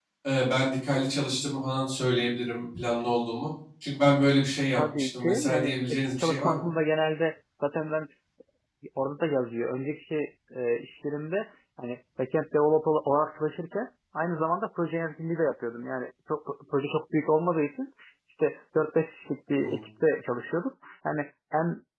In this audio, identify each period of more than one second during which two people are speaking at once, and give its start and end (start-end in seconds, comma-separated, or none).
4.8-6.7